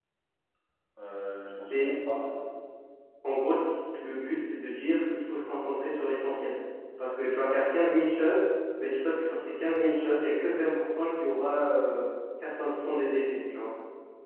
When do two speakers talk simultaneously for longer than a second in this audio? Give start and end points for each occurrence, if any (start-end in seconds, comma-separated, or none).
none